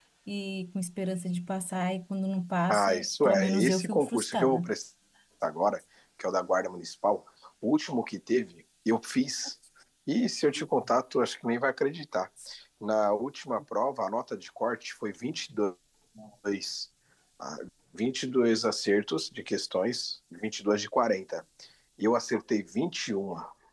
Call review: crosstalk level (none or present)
present